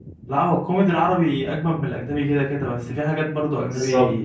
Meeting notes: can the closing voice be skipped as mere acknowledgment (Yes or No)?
Yes